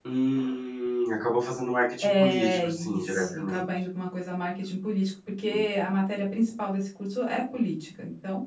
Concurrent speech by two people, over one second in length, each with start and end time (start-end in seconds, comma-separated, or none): 2.0-3.7